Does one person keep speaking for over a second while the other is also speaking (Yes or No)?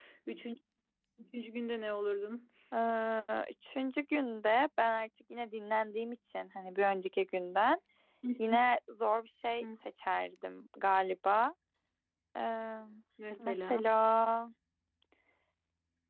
No